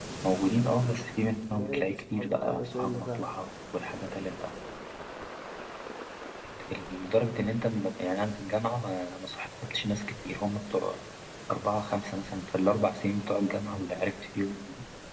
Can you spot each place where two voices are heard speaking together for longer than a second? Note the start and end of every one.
1.5-3.3

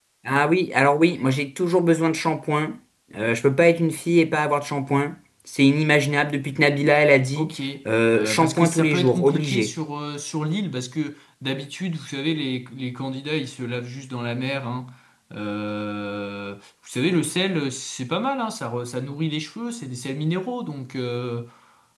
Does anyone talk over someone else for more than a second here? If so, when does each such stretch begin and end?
8.1-9.7

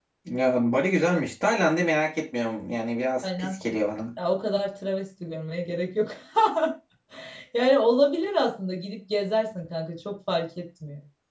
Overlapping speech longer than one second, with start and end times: none

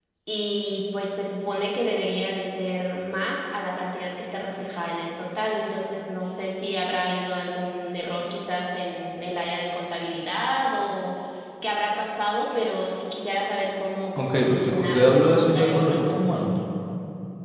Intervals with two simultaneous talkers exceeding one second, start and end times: 14.2-16.2

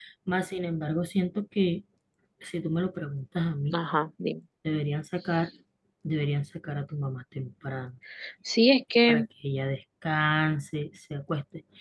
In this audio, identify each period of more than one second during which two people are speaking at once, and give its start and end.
none

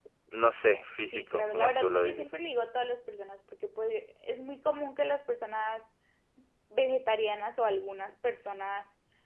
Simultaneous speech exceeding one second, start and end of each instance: 1.0-2.3

